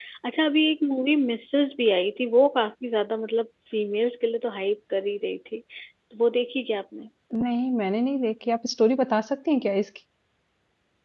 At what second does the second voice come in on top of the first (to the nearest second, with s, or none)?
none